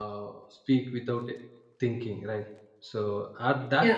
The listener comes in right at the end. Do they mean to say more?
Yes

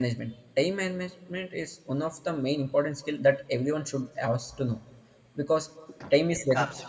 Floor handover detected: No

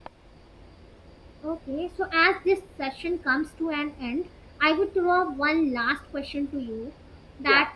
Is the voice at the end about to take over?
No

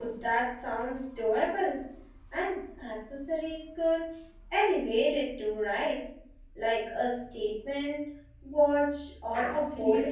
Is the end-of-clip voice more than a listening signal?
Yes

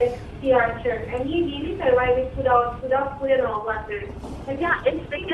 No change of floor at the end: No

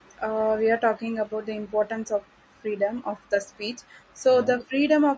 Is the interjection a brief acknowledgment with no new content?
Yes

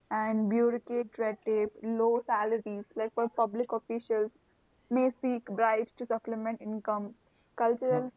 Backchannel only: Yes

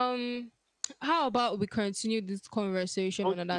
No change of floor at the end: No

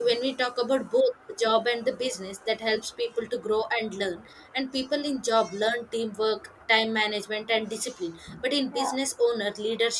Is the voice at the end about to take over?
No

